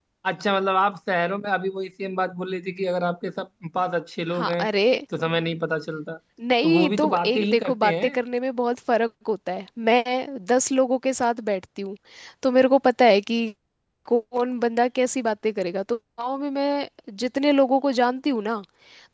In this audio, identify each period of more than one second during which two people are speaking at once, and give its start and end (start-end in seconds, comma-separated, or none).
6.6-8.2